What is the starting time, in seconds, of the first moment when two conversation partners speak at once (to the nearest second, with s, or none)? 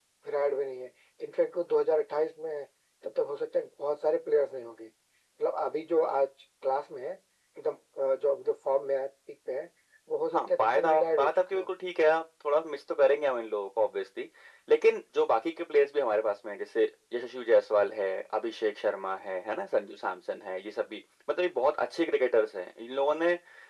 10 s